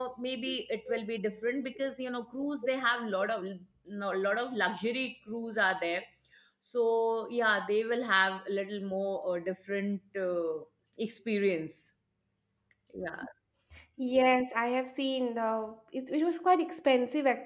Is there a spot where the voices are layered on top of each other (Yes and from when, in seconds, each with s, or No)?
No